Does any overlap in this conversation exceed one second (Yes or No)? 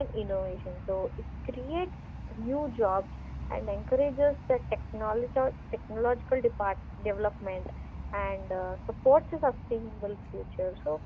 No